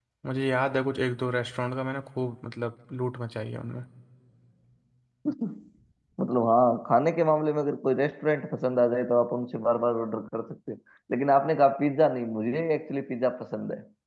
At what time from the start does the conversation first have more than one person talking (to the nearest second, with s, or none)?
none